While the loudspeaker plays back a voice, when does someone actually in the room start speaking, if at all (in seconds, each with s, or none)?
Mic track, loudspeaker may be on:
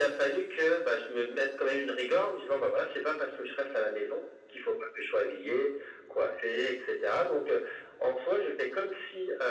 none